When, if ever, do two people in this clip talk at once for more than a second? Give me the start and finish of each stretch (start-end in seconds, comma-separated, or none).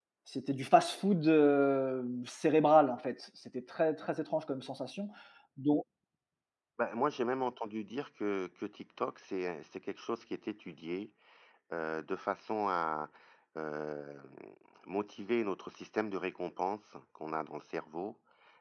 none